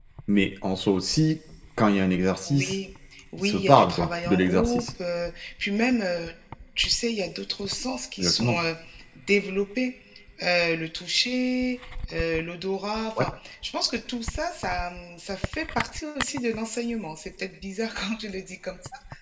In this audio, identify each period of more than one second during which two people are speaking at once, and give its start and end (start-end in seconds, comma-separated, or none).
3.4-4.8